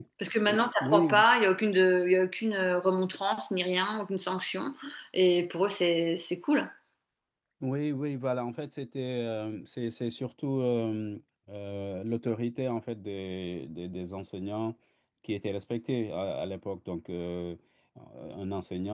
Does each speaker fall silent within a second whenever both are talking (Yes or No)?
Yes